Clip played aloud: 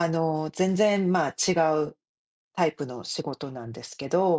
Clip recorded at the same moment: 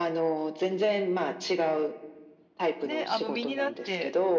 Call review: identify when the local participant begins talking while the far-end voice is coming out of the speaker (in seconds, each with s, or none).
2.8 s